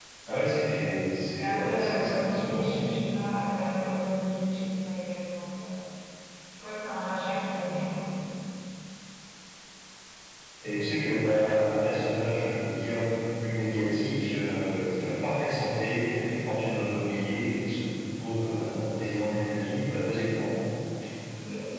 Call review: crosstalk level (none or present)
present